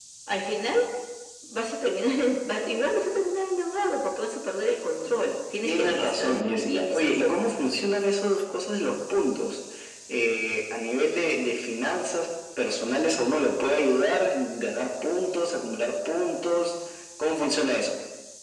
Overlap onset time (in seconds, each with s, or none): 5.6 s